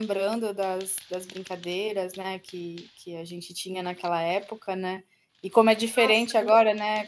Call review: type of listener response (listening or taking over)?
listening